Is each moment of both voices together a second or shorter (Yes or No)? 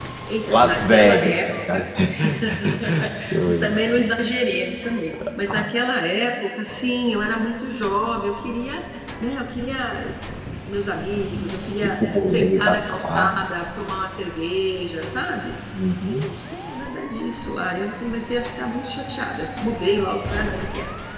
No